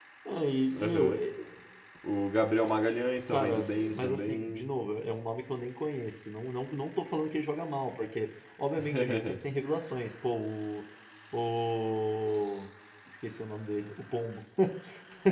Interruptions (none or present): present